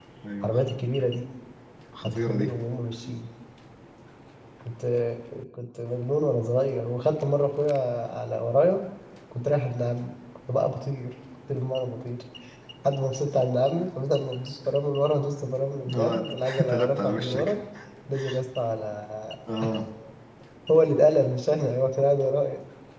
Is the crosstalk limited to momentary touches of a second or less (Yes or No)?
No